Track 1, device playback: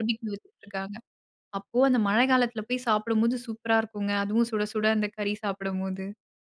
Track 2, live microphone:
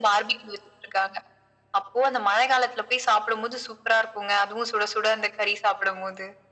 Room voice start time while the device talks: none

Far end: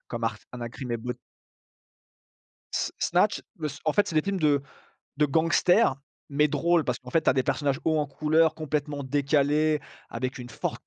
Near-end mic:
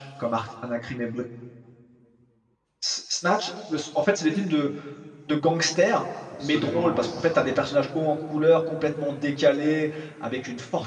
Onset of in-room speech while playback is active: 6.3 s

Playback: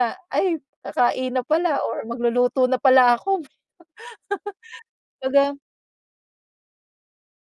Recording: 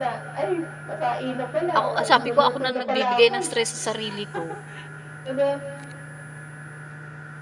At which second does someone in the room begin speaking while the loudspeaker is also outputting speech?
1.7 s

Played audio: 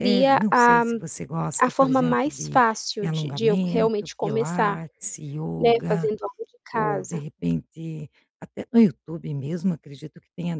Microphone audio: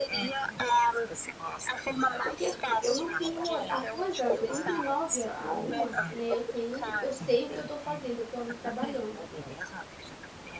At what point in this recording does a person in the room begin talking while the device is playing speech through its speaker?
2.2 s

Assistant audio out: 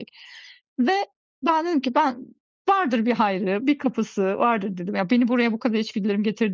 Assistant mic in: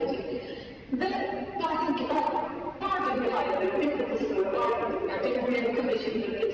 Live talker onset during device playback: none

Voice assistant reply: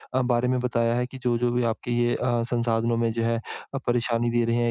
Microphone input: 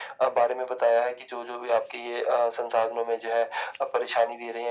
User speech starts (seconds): none

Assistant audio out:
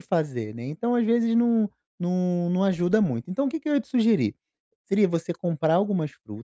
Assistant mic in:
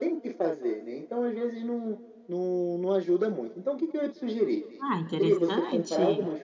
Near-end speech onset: 4.8 s

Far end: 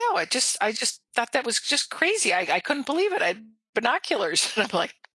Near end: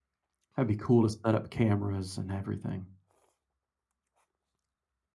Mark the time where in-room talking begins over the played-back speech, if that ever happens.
0.6 s

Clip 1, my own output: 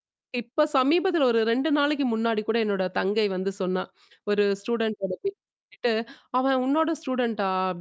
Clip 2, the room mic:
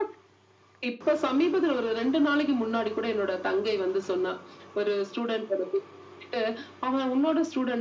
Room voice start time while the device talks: none

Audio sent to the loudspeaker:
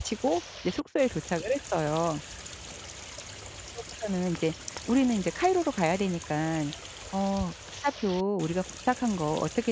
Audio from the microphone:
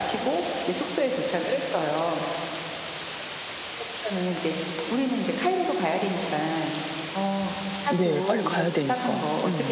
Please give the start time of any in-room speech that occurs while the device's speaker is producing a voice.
7.9 s

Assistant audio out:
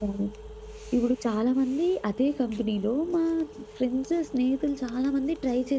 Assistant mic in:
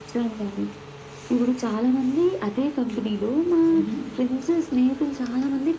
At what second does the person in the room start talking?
3.7 s

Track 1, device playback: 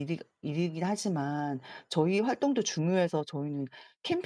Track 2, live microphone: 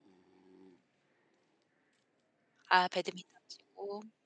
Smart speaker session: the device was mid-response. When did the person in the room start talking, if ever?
2.7 s

